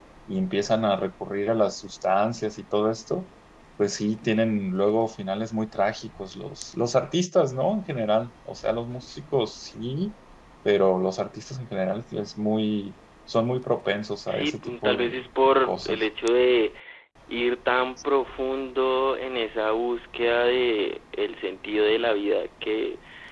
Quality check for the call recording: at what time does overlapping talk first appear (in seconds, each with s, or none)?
14.3 s